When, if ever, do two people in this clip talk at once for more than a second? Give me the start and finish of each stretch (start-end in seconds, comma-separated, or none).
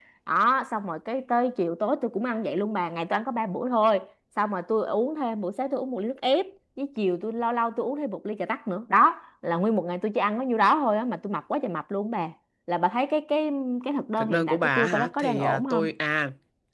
14.2-15.9